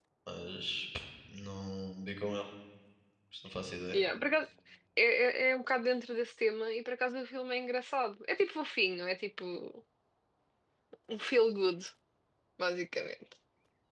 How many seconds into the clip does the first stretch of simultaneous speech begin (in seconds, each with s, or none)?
none